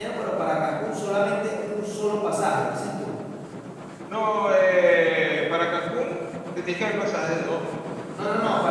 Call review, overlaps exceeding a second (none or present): none